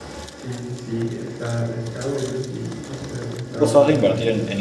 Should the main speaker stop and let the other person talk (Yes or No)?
Yes